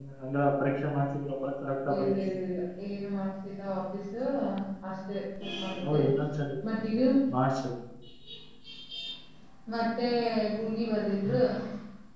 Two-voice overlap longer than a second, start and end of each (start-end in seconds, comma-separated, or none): none